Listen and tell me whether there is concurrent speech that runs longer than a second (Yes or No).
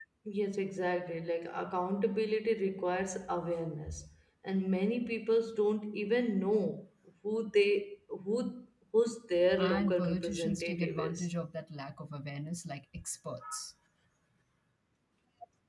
Yes